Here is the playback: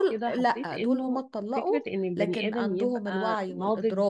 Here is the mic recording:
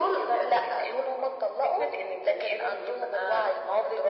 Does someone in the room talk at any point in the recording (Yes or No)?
No